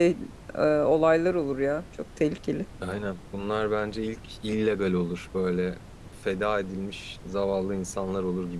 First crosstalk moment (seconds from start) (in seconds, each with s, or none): none